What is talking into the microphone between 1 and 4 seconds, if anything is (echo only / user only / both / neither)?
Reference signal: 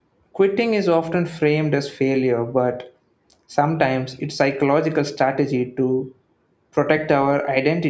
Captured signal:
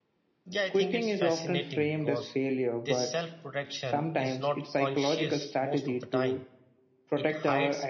both